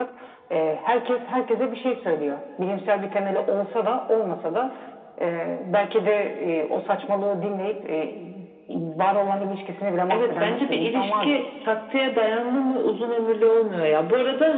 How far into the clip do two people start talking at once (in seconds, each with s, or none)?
10.1 s